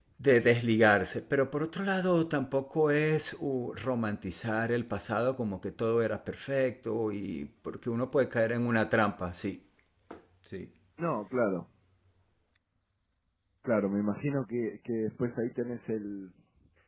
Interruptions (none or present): none